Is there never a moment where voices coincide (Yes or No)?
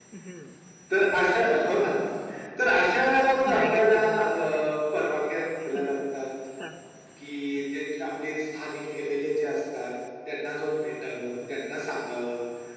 No